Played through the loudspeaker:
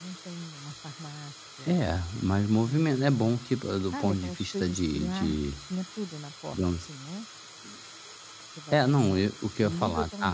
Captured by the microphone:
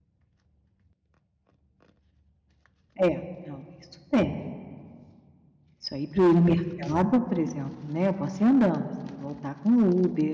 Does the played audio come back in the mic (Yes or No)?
No